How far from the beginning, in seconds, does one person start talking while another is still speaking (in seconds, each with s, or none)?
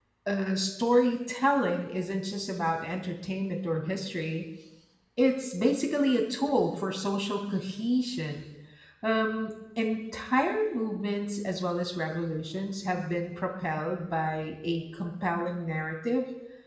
none